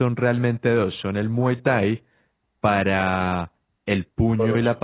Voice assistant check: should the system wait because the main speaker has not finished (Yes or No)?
Yes